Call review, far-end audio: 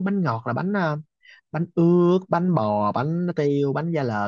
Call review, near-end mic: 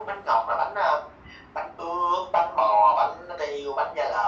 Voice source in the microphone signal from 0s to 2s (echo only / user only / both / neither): echo only